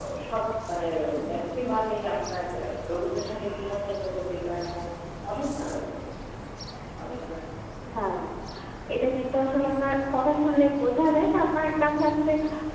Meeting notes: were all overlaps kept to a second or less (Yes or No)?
Yes